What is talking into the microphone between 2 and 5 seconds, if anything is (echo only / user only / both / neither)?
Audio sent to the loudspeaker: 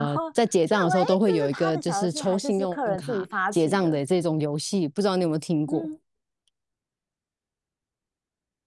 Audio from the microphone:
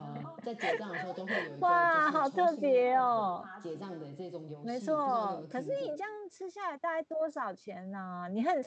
both